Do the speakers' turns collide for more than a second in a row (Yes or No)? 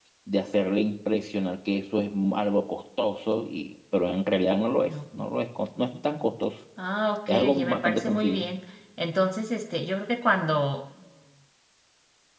Yes